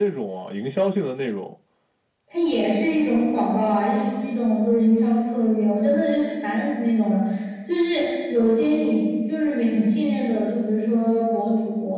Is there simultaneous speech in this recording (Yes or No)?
No